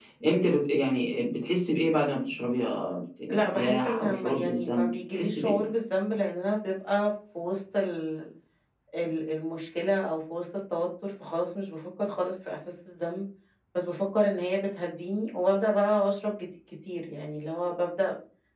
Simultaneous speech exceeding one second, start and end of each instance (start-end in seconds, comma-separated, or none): 3.3-5.7